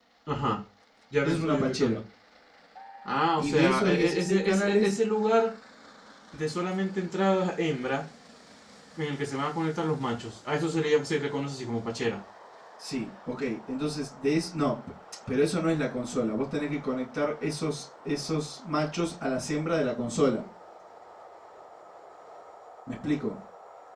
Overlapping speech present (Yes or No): Yes